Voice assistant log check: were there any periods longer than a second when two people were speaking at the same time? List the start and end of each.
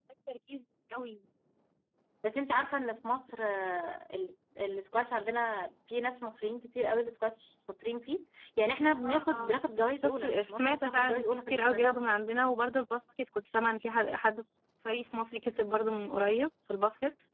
10.0-11.8

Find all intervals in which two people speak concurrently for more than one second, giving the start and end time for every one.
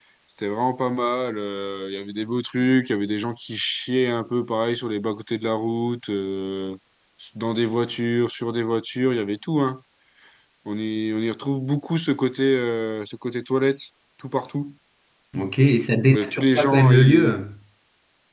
16.1-17.3

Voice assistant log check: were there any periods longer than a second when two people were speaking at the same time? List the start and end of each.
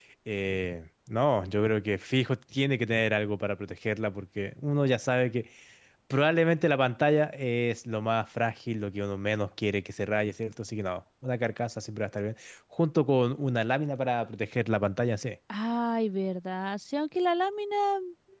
none

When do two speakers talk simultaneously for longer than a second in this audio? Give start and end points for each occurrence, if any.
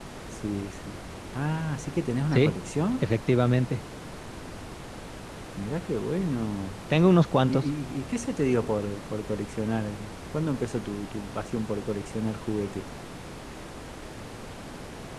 none

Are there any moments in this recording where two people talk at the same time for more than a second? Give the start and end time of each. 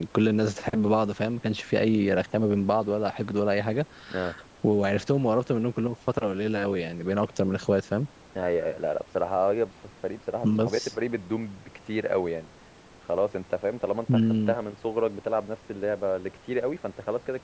none

